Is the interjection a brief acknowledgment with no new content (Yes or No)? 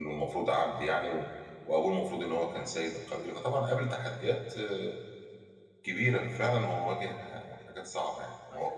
No